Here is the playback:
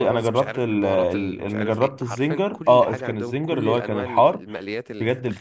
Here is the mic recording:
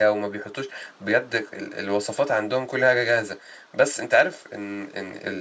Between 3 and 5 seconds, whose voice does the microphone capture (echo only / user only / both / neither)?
user only